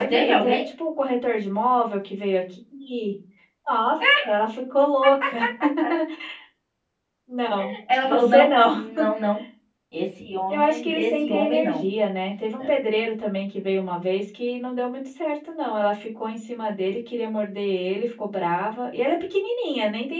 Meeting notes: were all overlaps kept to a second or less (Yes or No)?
No